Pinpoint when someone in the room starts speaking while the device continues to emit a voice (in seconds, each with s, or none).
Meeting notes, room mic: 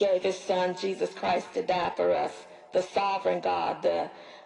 none